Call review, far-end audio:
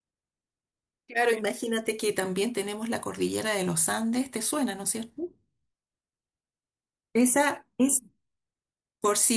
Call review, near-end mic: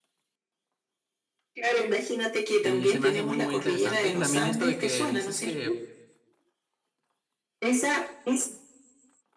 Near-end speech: present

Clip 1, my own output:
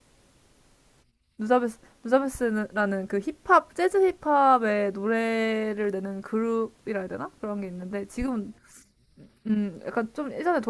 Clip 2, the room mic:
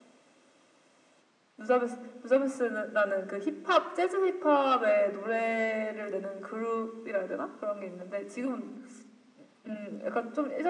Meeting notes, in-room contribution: none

